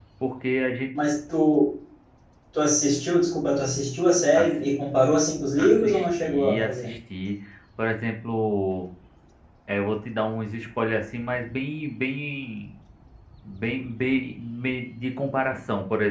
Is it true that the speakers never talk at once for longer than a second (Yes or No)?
No